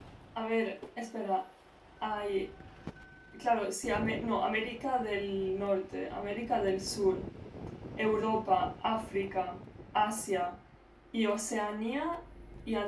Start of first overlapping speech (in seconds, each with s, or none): none